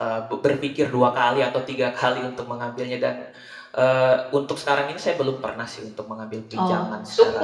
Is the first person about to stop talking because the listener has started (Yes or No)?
Yes